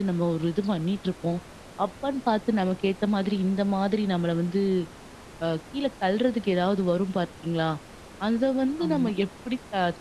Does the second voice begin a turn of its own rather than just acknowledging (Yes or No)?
No